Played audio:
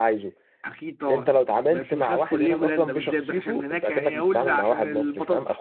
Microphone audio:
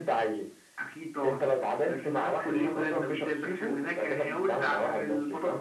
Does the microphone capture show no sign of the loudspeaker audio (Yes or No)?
No